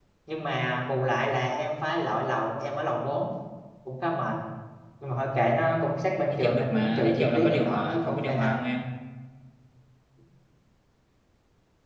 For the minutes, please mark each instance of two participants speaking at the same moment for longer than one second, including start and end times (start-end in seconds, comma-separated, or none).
6.3-8.5